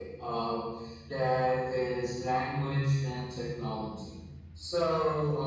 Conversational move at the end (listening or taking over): listening